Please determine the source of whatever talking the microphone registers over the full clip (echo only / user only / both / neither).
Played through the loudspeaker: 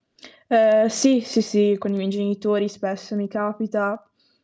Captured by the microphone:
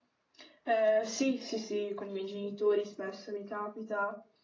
echo only